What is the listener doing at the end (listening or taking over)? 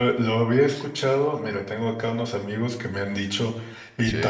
listening